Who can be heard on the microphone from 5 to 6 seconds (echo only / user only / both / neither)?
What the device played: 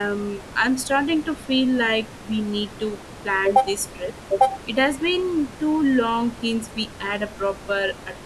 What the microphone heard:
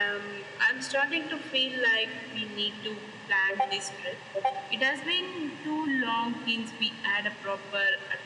echo only